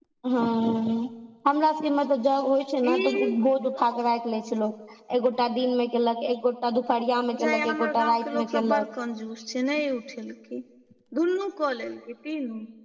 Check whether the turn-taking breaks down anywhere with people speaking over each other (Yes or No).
Yes